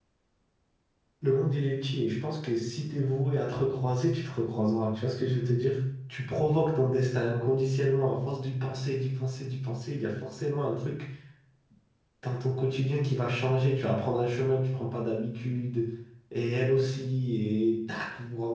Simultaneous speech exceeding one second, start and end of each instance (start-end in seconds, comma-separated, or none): none